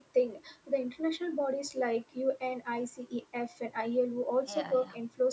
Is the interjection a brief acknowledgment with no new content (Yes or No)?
Yes